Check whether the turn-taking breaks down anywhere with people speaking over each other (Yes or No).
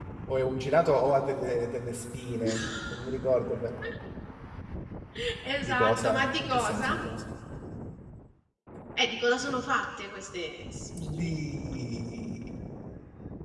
Yes